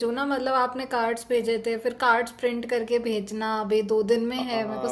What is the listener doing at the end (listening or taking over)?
taking over